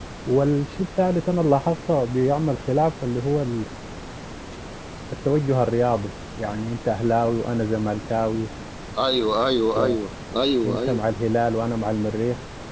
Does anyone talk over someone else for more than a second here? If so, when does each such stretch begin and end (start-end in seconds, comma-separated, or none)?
none